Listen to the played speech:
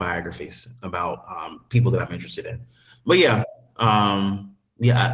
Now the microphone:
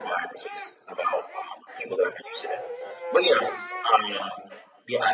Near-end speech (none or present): none